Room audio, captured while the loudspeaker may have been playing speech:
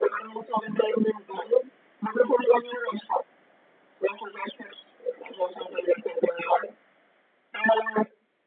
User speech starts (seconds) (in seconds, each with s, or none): none